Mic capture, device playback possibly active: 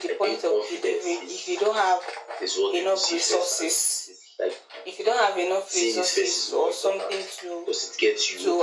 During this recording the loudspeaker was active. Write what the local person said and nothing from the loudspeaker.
none

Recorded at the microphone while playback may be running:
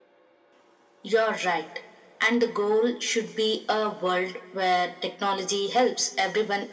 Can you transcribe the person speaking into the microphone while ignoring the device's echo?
none

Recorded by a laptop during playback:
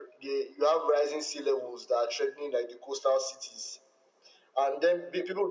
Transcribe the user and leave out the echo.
none

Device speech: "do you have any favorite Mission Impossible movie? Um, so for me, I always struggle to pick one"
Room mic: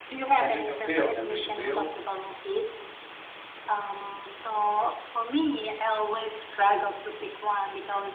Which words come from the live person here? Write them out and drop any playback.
Henry Cavill. Henry Cavill.

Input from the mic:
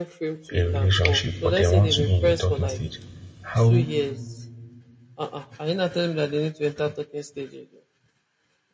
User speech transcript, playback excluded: a relationship, but they want to be in a talking stage. How

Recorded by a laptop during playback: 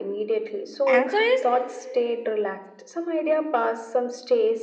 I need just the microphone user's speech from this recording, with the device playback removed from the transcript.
answer is

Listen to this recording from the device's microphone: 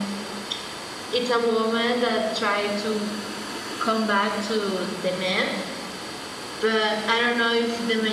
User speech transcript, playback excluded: none

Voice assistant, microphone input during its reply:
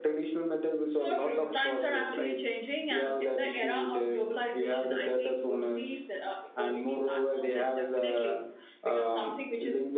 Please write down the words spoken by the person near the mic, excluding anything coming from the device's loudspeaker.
none

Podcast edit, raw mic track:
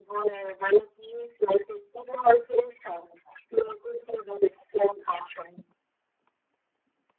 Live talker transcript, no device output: none

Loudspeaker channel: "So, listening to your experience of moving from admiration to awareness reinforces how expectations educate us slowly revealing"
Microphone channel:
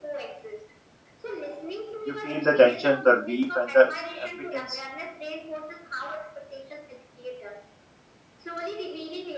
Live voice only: you feel the tension, the relief, and the ex- impotence.

